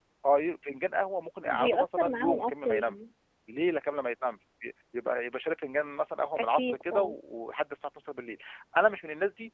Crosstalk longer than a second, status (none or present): present